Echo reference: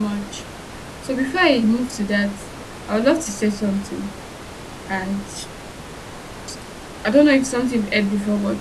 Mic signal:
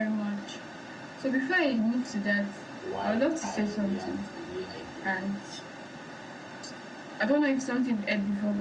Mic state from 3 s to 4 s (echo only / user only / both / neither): both